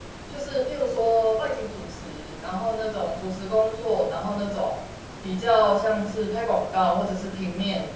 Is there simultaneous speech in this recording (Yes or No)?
No